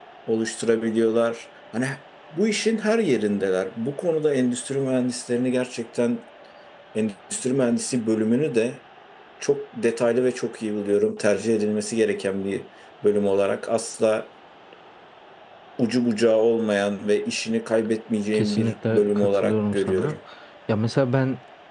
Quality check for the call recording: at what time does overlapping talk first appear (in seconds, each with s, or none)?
18.3 s